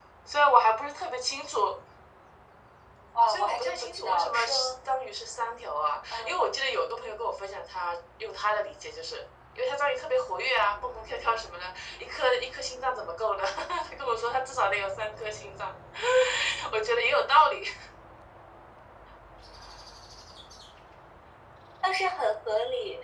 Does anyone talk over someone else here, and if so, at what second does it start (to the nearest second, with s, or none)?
3 s